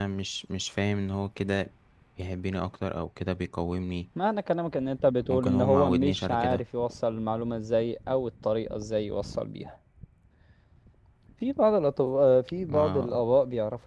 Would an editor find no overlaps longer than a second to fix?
No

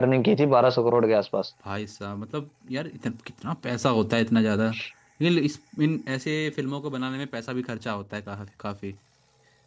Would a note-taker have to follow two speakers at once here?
No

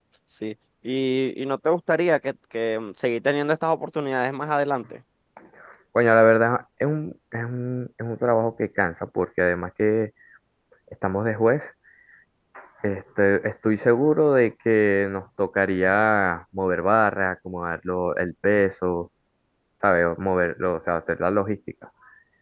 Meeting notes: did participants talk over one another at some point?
No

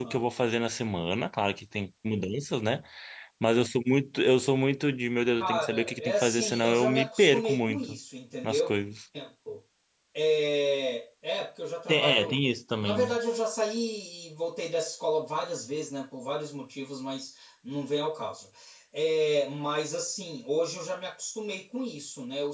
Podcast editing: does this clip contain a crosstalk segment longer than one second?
Yes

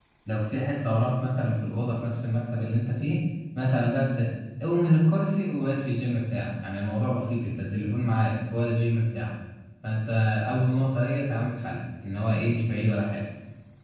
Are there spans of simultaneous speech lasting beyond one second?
No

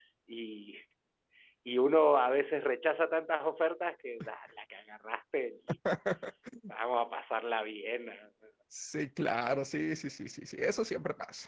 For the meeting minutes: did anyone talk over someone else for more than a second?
No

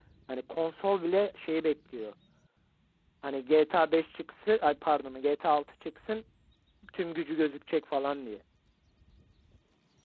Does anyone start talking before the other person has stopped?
No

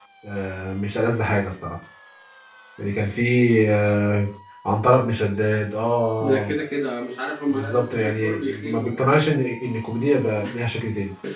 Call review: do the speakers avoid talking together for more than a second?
No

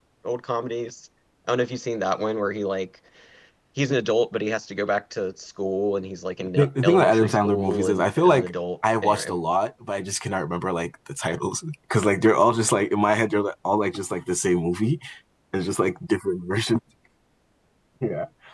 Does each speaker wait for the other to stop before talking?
No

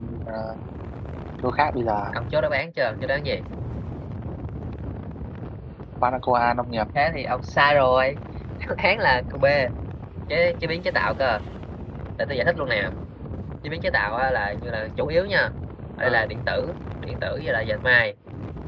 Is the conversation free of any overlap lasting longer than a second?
Yes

